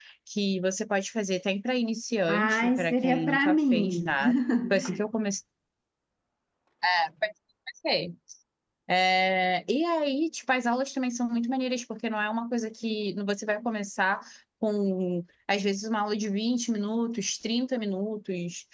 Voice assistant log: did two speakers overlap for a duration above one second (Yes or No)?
Yes